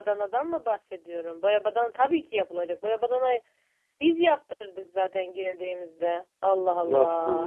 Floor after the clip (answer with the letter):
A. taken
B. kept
A